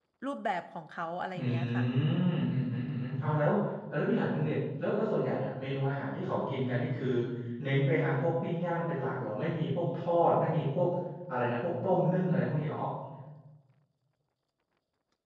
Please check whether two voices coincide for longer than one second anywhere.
No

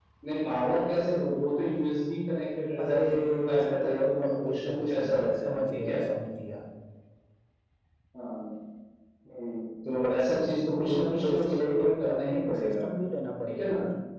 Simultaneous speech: Yes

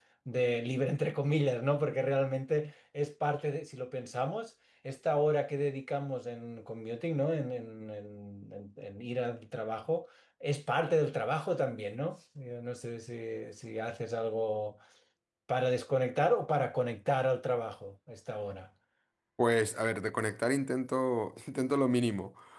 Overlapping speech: No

